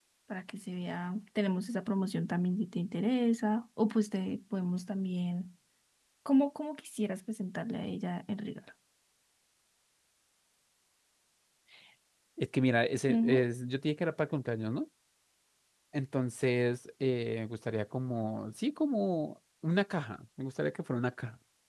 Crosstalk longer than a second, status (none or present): none